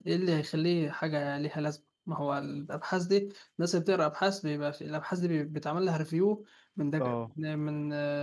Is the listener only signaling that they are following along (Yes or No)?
Yes